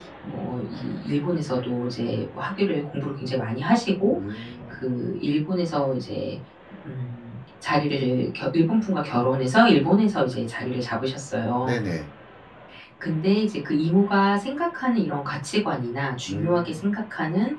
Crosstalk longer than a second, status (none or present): none